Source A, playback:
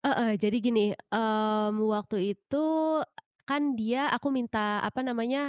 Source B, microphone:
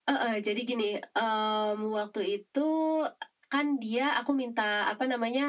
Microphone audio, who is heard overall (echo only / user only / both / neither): echo only